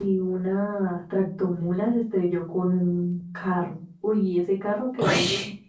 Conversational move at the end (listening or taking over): listening